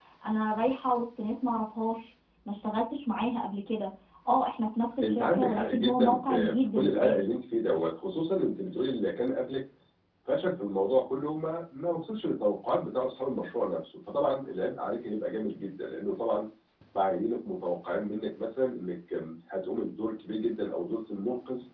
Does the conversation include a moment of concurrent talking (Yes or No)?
Yes